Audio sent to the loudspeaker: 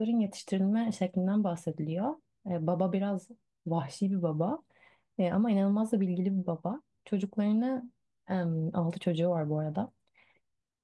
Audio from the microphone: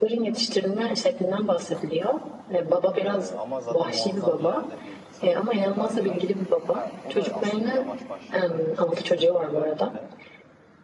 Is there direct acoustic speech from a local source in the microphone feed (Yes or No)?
Yes